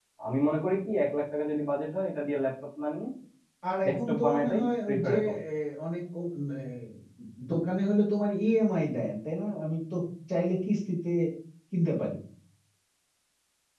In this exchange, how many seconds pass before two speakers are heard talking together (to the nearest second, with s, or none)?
4 s